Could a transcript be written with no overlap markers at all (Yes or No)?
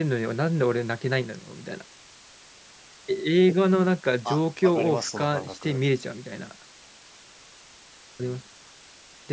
No